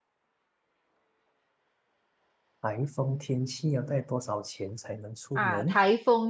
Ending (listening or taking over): taking over